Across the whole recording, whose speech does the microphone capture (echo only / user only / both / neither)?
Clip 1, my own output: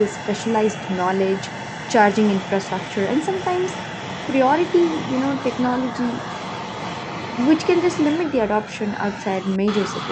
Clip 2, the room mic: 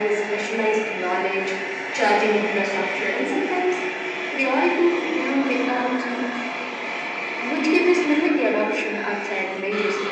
echo only